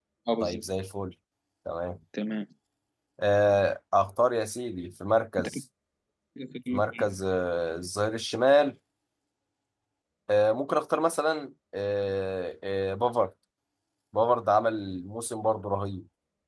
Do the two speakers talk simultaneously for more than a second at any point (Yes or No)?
No